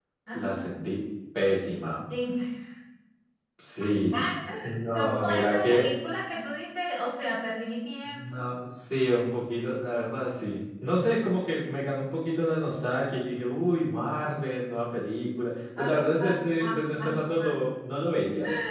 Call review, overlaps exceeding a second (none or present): present